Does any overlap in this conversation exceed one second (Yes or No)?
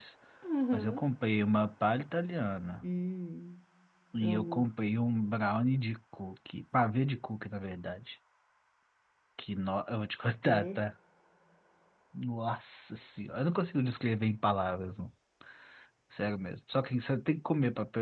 No